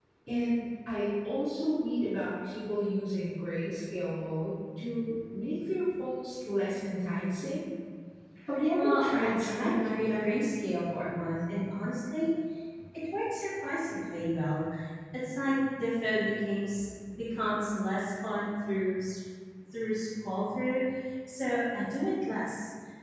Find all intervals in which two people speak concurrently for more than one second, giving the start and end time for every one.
8.8-10.4

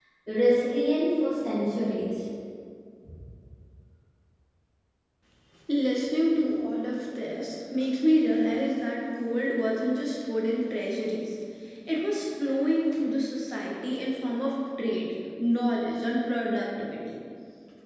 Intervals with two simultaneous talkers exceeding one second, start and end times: none

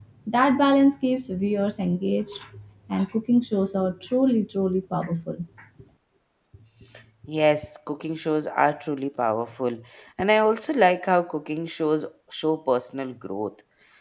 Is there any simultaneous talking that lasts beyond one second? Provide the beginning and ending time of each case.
none

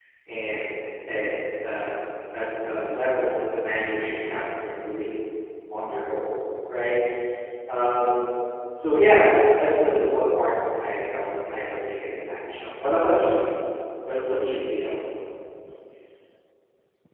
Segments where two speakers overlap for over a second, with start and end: none

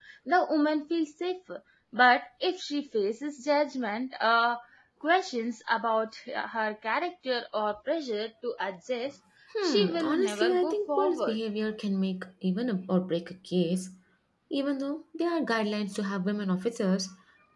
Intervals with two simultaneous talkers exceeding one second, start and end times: 9.6-11.4

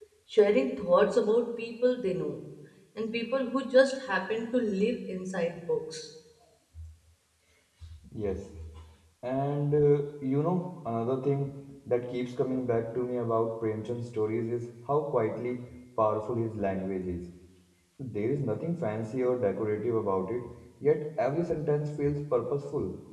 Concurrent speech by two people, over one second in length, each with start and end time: none

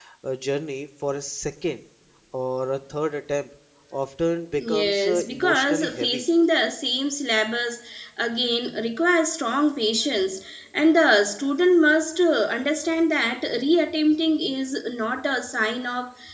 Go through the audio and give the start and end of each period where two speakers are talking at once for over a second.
4.5-6.2

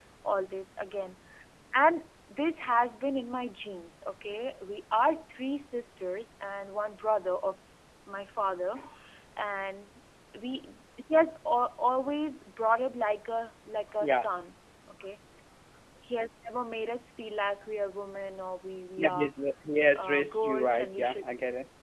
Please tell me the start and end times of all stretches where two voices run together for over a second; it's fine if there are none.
20.0-21.2

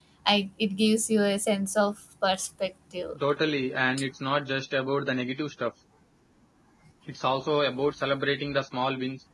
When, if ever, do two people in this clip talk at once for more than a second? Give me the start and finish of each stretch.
none

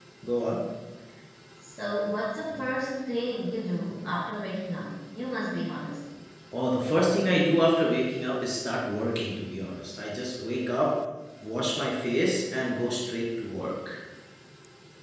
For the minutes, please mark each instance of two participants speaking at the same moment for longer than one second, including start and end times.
none

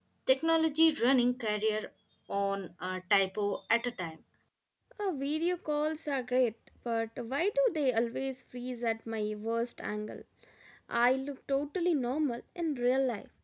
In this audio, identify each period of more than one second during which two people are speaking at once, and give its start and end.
none

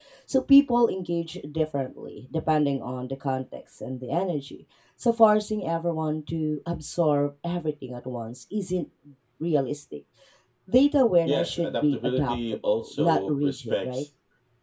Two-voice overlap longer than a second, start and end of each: 11.2-14.0

